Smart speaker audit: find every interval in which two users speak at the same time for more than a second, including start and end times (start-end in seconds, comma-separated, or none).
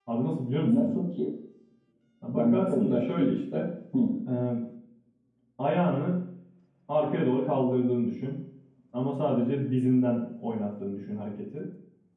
2.3-3.6